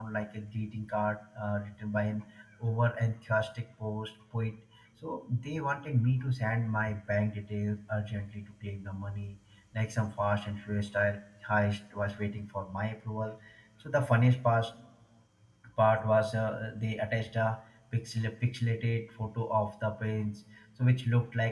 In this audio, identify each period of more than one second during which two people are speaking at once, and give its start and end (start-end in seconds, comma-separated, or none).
none